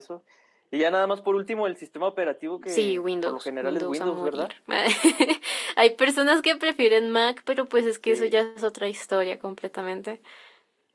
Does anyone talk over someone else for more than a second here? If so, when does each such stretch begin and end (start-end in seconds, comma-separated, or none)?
2.7-4.5